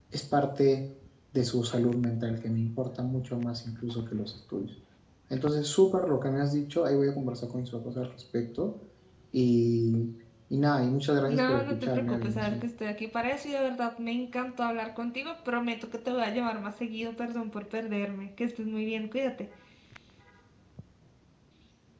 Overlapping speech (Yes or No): Yes